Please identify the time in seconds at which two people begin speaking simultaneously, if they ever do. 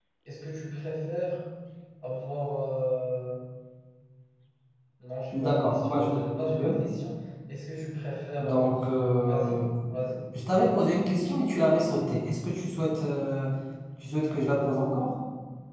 5 s

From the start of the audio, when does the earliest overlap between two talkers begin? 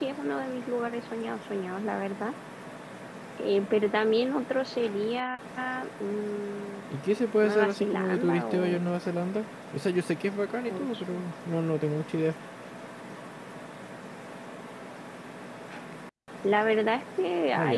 7 s

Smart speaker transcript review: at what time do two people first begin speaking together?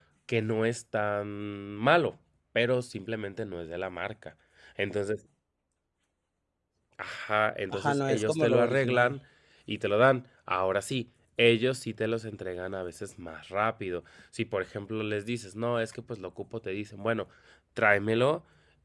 8 s

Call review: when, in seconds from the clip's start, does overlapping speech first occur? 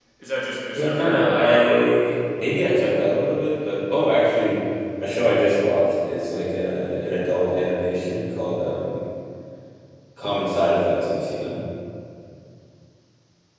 1 s

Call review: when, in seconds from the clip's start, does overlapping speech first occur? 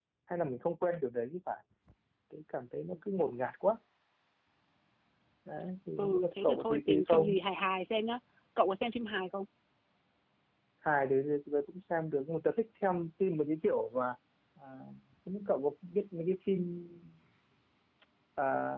6 s

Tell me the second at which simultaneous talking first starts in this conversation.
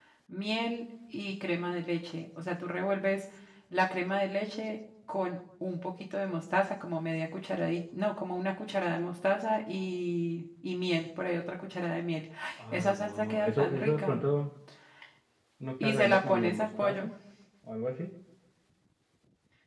13 s

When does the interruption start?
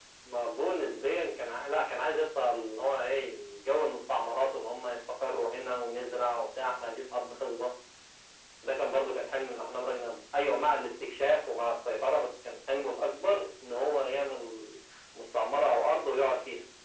none

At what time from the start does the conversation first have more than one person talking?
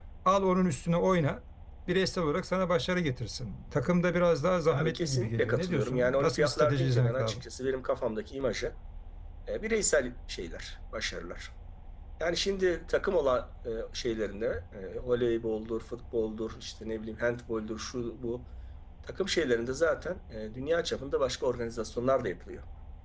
5 s

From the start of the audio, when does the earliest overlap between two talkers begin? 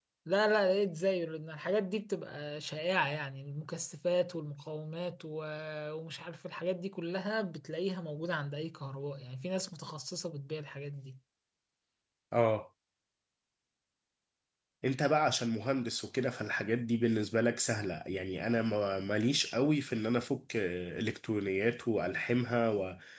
none

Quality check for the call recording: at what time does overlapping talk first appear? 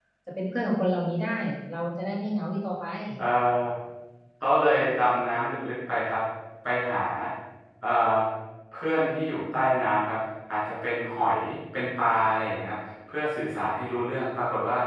none

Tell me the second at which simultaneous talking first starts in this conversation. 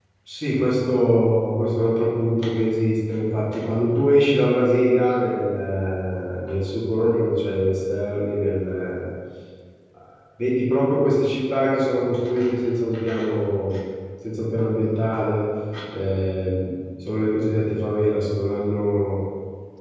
none

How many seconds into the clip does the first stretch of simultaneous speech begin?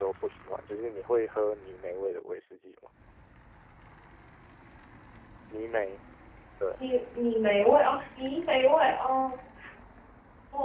none

